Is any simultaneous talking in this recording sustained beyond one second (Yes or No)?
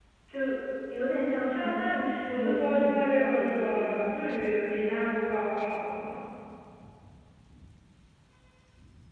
Yes